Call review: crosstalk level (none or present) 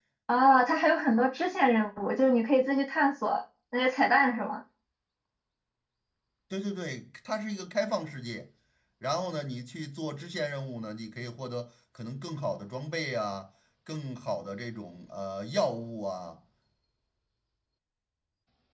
none